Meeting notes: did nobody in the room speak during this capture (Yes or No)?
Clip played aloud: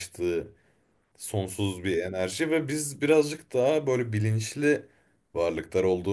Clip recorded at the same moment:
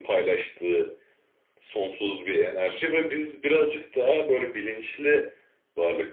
Yes